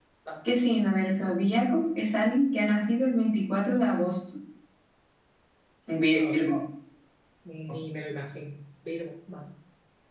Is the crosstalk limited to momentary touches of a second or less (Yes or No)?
Yes